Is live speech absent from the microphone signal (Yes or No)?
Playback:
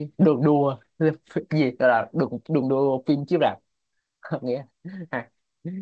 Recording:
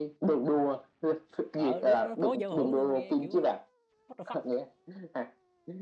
No